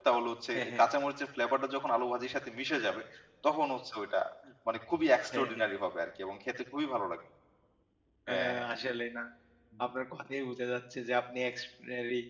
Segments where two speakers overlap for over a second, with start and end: none

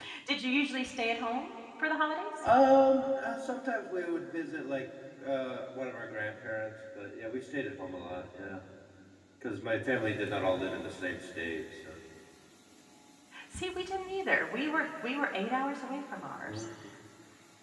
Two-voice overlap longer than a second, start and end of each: none

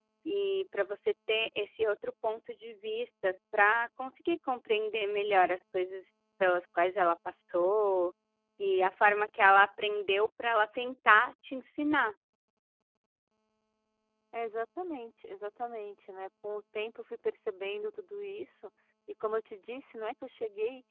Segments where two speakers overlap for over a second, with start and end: none

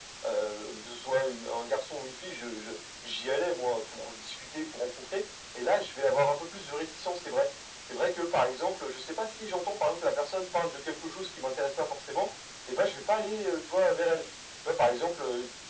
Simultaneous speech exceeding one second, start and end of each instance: none

